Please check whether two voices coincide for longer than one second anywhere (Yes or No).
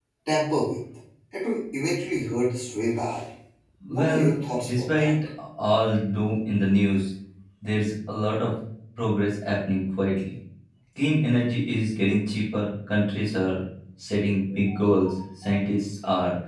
Yes